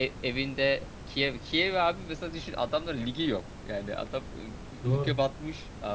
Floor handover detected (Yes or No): No